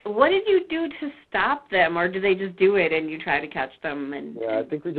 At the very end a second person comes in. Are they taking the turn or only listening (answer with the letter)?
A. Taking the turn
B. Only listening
A